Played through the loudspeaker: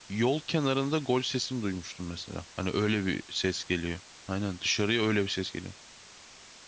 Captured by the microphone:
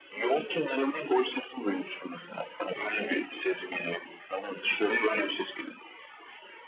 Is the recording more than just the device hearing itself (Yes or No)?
No